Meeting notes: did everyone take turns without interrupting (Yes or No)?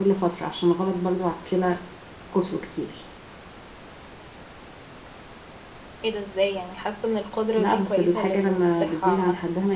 No